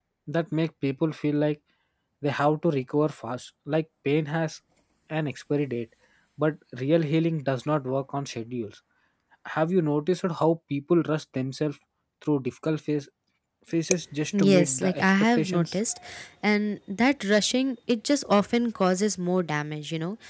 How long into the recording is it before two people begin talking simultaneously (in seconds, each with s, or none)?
14.4 s